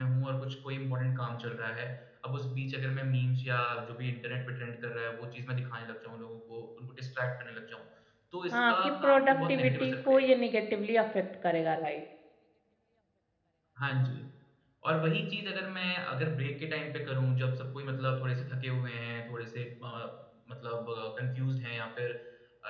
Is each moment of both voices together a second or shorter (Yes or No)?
No